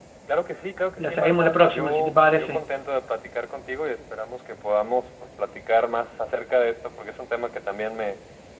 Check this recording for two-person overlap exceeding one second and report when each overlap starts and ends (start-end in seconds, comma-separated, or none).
1.0-2.7